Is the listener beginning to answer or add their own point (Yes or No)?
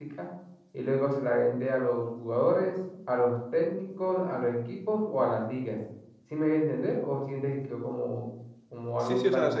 Yes